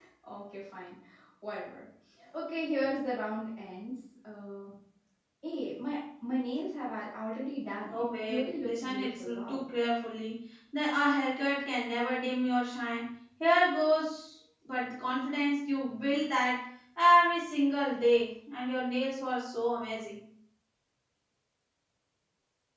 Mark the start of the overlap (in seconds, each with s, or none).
7.9 s